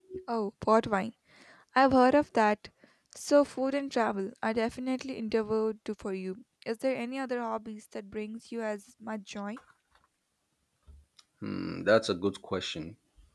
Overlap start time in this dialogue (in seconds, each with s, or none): none